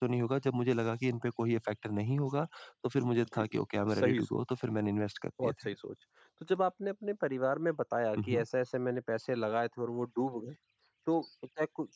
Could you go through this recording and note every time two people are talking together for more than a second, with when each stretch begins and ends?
none

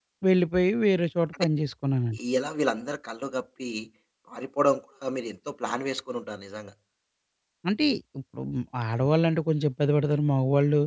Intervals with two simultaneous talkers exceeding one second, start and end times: none

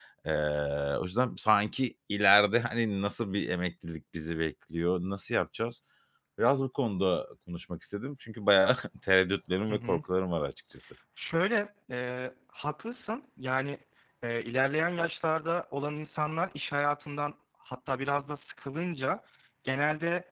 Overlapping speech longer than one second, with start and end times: none

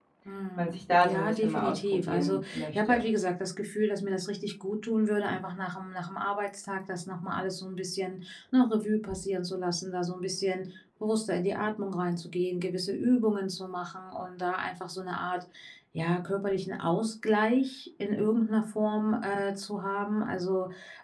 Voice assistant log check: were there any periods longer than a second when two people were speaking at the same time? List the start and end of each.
0.6-3.1

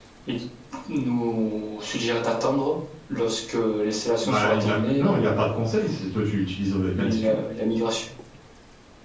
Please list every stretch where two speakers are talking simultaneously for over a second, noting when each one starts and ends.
4.2-5.6

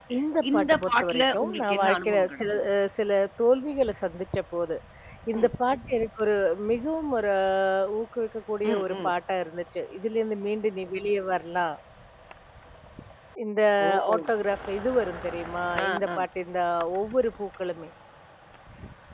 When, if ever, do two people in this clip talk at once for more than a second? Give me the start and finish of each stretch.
0.5-2.4

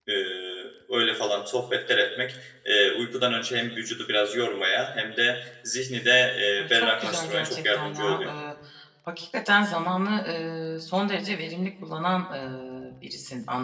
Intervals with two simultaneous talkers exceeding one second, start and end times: 6.6-8.3

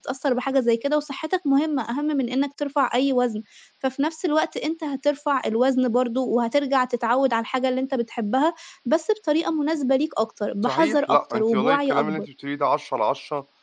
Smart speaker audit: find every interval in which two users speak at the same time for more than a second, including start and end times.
10.7-12.2

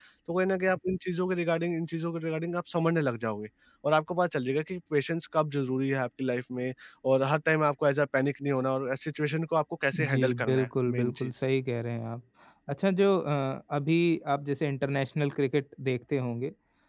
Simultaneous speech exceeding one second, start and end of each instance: 9.9-11.3

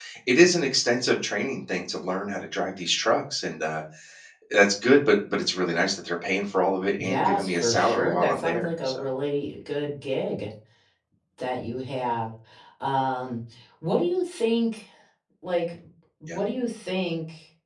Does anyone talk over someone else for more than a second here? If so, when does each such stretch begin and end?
7.0-9.0

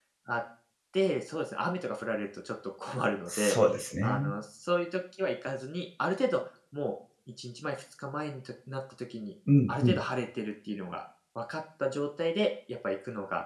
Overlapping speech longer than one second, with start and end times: none

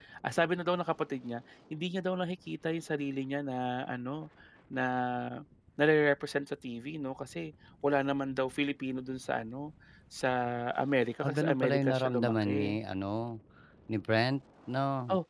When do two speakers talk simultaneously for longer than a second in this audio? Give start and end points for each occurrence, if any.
11.2-12.8

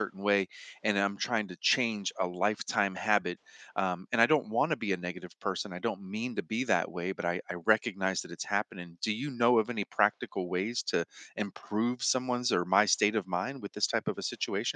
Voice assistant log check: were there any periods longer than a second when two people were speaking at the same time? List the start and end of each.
none

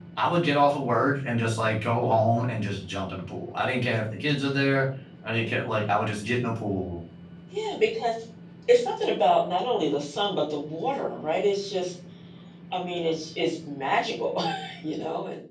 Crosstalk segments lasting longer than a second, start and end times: none

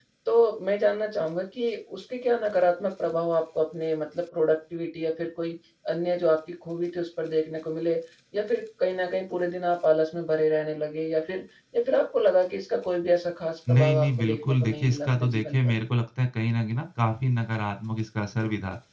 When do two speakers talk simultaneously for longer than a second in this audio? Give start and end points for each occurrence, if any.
13.7-15.7

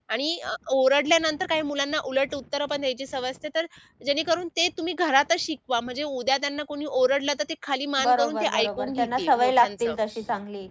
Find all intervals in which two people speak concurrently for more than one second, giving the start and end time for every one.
8.0-9.9

